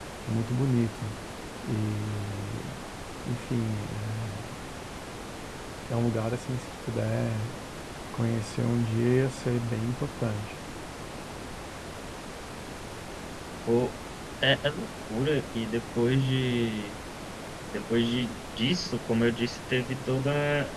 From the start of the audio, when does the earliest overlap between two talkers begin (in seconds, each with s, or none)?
none